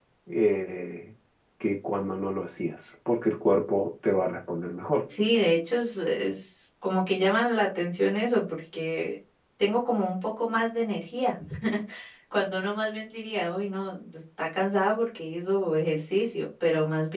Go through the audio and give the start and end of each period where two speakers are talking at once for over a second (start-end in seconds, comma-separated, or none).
none